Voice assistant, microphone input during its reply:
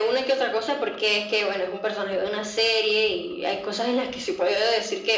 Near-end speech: none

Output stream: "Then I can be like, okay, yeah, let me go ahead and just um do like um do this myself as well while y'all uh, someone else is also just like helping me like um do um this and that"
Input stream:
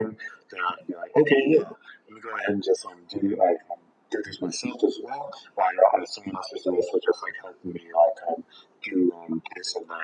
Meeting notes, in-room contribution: none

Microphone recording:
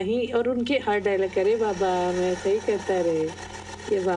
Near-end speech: none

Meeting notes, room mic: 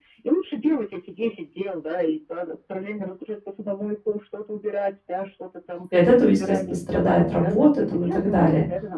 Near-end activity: present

